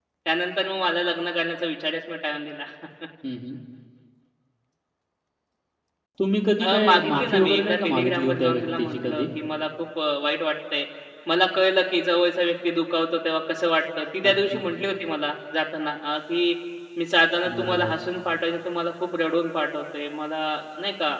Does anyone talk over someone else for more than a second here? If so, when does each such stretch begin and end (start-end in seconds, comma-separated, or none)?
6.6-9.2